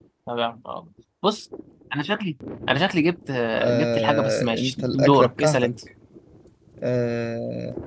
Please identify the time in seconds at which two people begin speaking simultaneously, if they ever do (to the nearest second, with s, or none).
4 s